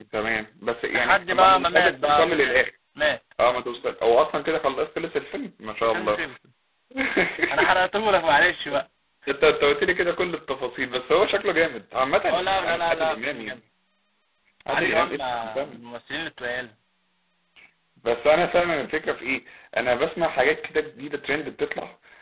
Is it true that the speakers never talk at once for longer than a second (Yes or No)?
No